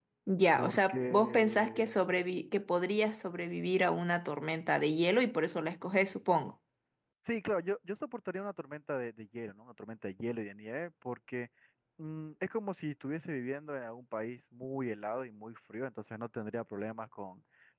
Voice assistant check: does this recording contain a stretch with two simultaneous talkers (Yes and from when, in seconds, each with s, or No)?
Yes, from 0.6 s